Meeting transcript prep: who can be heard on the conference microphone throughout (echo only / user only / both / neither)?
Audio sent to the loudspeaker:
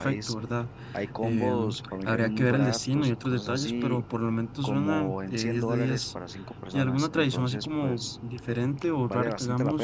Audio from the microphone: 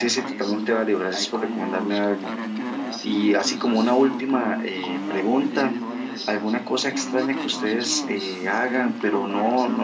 both